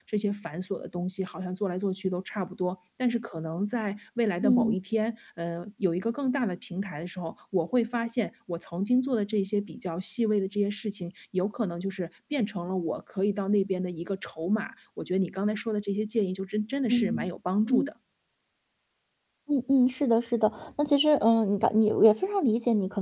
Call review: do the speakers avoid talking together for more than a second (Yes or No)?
Yes